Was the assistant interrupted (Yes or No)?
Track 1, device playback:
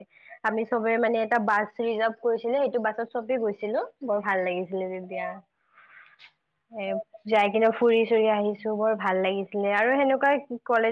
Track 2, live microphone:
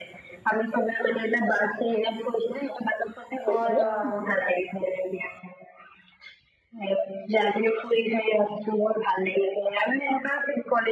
Yes